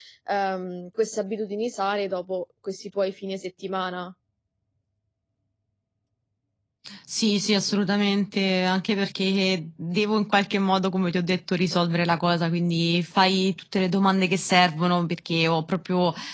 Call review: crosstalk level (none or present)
none